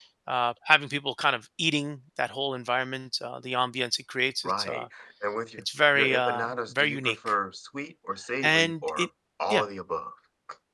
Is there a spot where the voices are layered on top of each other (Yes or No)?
Yes